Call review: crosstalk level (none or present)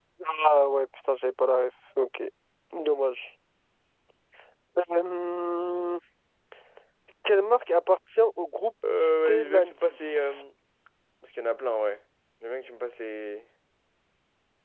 present